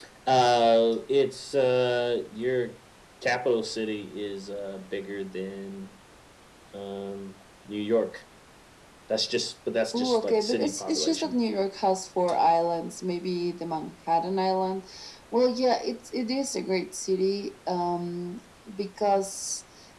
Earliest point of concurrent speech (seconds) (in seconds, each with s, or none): 9.9 s